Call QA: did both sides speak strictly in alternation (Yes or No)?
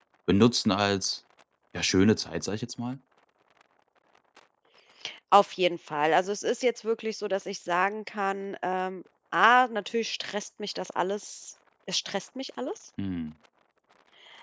Yes